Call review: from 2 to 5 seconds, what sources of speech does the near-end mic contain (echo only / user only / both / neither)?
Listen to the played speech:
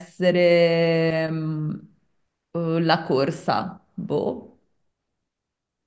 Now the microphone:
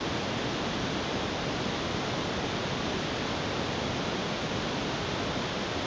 neither